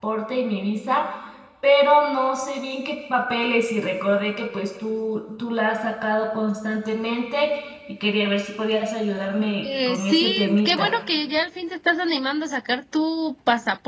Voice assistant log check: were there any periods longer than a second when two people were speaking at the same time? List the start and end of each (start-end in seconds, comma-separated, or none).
9.6-10.9